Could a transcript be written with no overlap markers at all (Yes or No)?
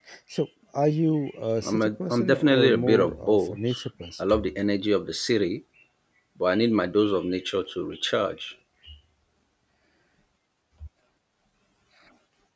No